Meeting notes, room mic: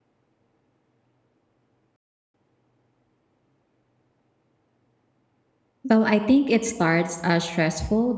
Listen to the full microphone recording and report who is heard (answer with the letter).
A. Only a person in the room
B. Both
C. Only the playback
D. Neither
A